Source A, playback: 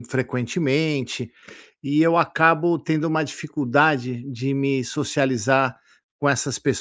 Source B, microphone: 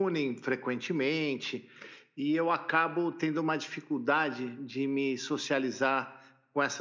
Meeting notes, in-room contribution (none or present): none